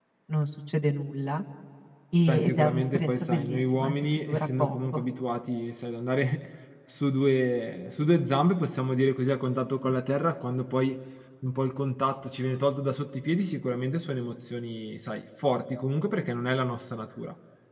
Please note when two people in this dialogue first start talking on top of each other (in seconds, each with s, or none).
2.3 s